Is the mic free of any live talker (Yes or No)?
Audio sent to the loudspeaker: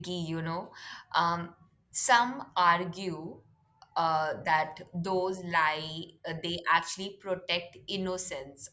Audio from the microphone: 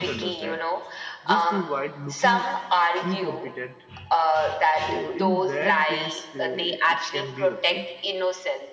No